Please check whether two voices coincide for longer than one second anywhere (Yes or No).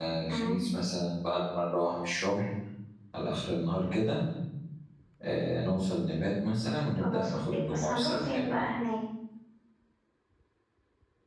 Yes